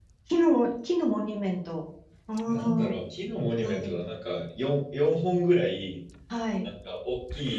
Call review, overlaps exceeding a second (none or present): none